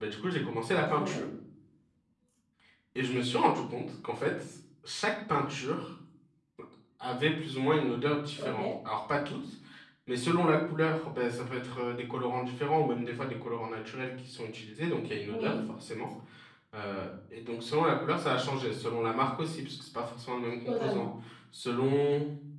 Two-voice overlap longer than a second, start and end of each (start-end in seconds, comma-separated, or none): none